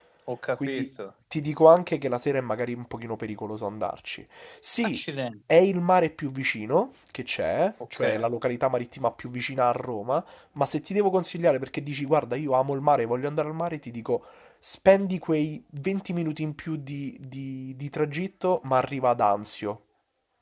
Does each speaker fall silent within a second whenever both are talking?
Yes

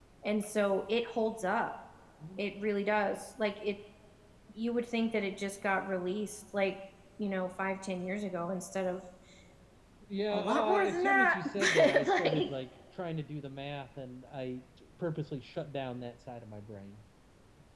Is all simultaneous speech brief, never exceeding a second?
No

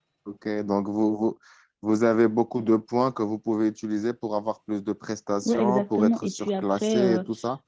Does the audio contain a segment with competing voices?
Yes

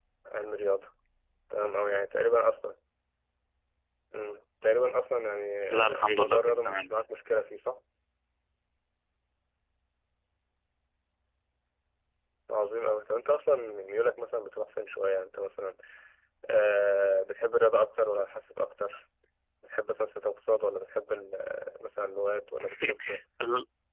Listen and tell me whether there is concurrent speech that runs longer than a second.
Yes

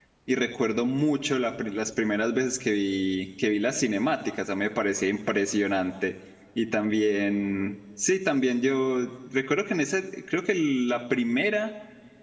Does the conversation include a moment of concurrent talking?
No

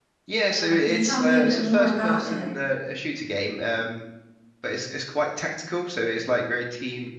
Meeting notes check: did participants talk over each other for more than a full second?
Yes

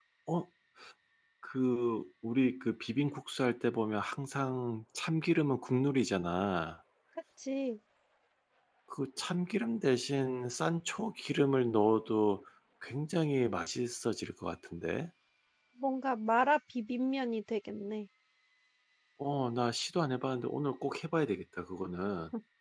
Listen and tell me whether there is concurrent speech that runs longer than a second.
No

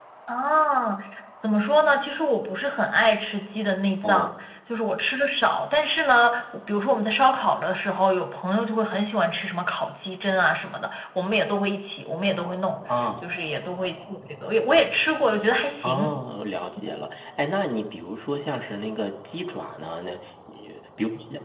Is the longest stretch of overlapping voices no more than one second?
Yes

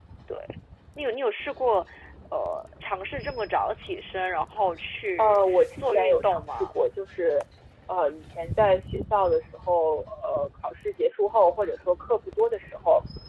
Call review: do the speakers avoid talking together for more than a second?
No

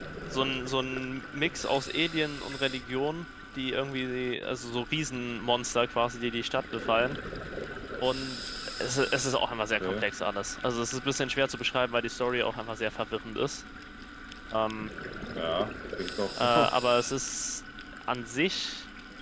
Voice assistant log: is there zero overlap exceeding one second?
Yes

